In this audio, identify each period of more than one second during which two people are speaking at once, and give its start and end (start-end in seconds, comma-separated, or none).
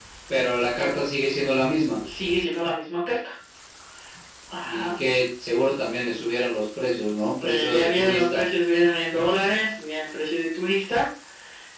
7.2-8.4